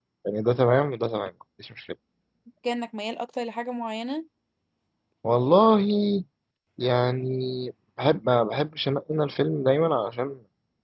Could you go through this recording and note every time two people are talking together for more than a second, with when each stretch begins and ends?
none

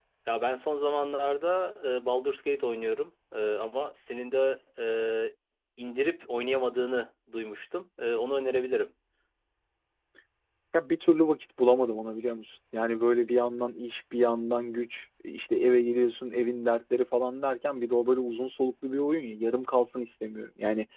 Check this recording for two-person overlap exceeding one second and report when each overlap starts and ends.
none

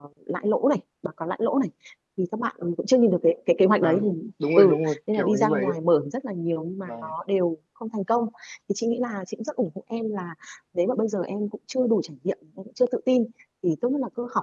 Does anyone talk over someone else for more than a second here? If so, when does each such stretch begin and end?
4.6-5.8

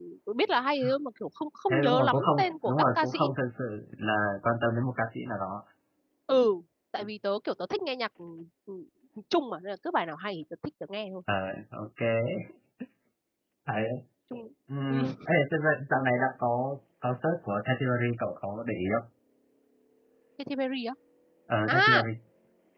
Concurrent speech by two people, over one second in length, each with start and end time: 1.7-3.2

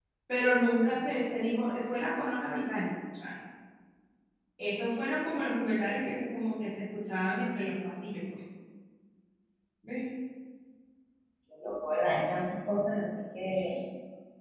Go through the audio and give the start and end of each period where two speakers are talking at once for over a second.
none

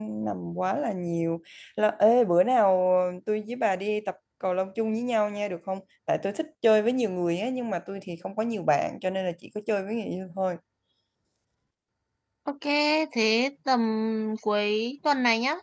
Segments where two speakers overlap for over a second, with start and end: none

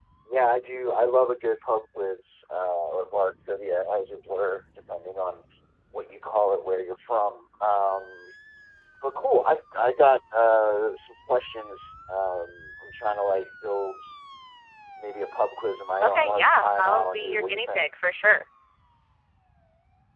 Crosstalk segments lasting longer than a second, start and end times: 16.0-17.8

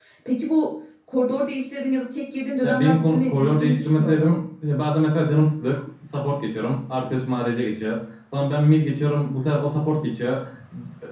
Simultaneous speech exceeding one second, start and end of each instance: 2.6-4.3

